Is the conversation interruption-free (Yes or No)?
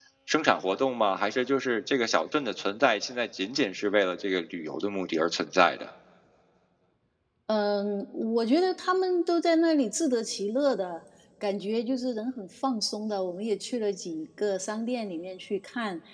Yes